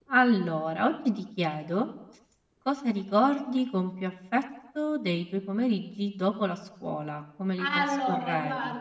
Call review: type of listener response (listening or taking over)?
taking over